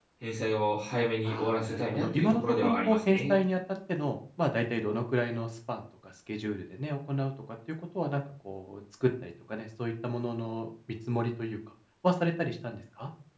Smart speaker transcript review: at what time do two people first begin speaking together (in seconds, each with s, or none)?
1.2 s